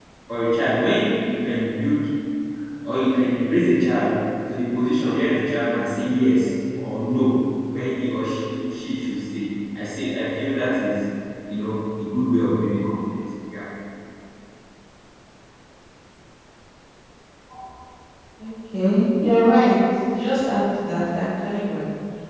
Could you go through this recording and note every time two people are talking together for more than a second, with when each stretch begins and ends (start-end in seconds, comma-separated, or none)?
none